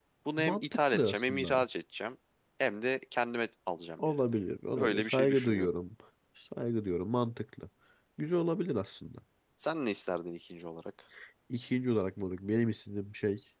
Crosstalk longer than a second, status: present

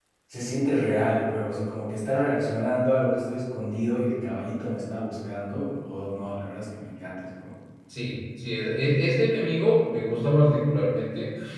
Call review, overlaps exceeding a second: none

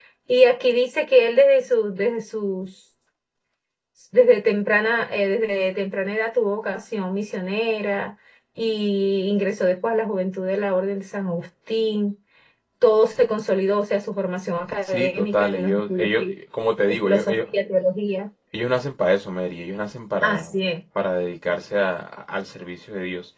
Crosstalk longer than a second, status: present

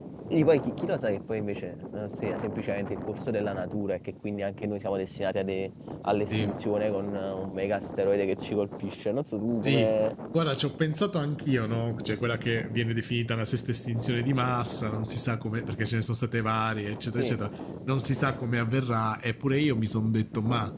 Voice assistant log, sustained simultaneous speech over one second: none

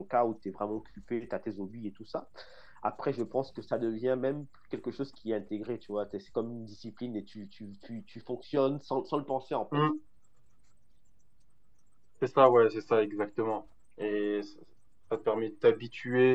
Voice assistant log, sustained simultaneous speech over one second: none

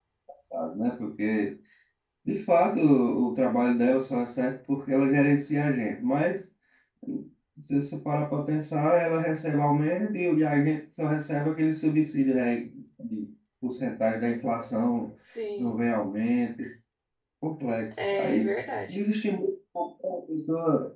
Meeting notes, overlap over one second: none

